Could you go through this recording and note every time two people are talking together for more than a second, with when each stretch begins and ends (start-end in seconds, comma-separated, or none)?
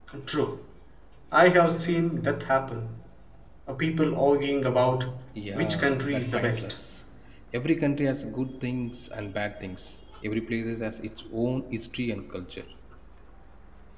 5.5-6.8